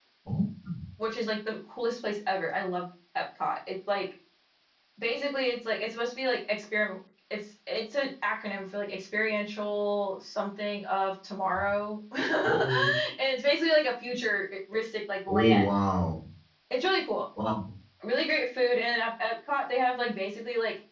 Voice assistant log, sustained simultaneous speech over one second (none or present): none